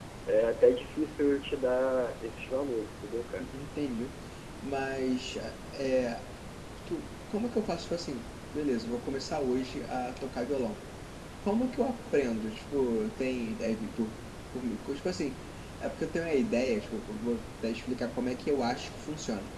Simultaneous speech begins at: none

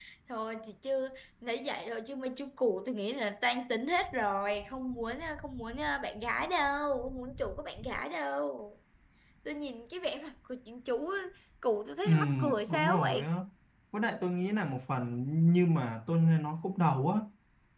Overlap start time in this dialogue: 12 s

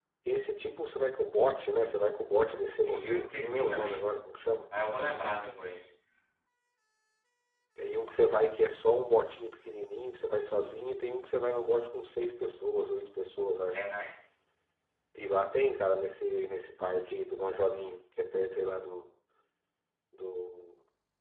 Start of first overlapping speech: 3 s

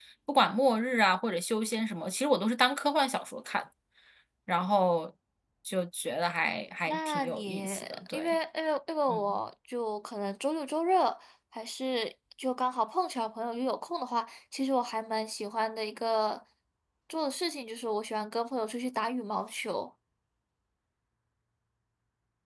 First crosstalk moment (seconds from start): 7 s

